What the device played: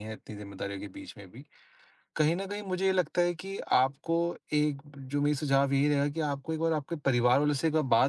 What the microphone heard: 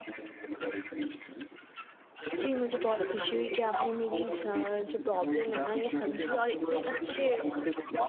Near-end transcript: जी, मुझे बहुत खुशी हुई कि आपने मेरी स जो प्रॉब्लम है ना ये समझी और इतने अच्छे

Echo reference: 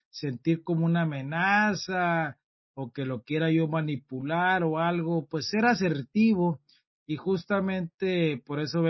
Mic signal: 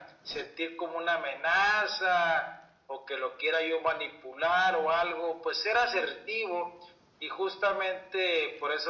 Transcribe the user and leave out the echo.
none

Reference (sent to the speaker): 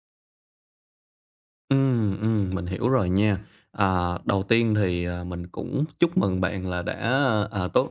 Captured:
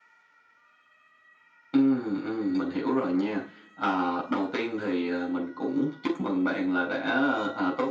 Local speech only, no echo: none

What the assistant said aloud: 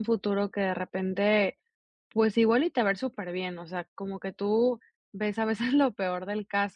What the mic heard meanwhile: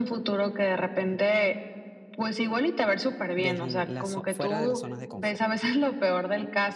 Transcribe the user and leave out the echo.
desde la zo- fuera de las zonas de confort.

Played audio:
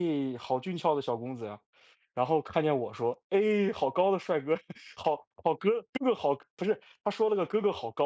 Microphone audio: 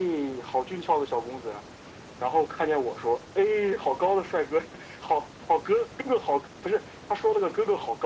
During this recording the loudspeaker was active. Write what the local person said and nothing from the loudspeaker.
none

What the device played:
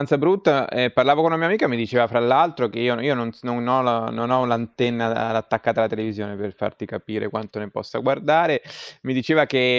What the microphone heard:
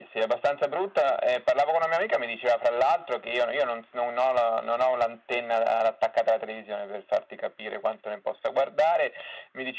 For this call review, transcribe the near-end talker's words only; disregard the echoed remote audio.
none

